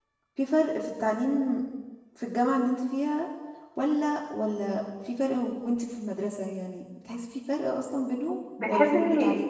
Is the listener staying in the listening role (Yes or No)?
No